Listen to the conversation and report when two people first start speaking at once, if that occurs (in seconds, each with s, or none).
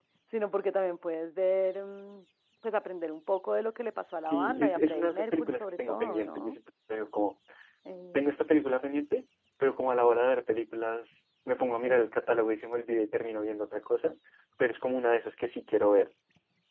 4.3 s